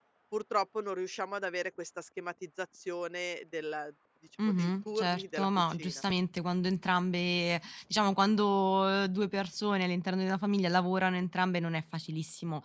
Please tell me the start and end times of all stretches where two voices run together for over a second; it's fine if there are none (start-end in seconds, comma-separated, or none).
4.5-6.0